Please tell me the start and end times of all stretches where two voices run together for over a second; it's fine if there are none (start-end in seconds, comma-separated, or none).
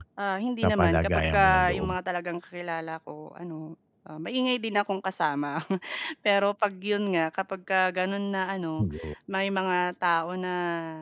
0.6-2.0